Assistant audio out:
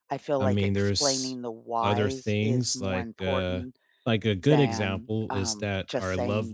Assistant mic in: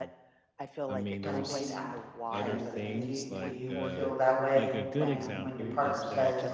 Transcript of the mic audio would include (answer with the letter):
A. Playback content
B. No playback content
A